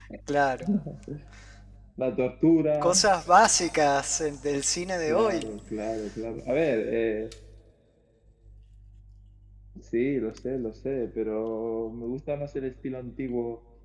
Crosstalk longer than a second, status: none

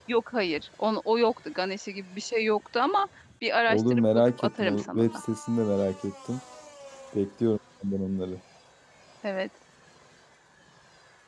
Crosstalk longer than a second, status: present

